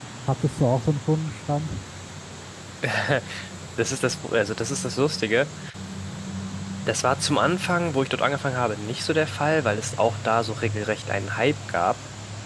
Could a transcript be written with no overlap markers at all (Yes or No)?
Yes